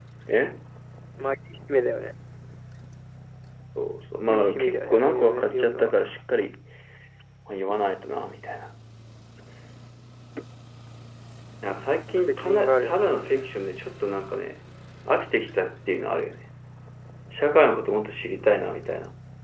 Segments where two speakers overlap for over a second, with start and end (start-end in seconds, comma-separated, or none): 4.3-5.9, 12.3-13.5